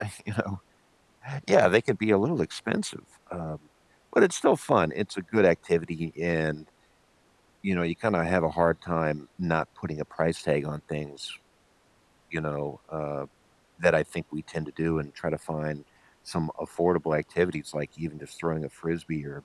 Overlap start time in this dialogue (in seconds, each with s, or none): none